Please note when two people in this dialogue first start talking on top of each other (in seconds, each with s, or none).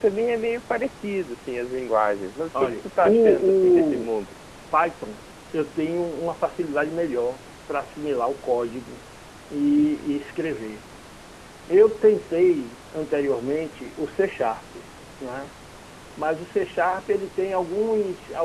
2.5 s